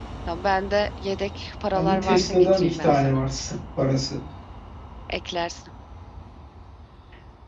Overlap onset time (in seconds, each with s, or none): 1.7 s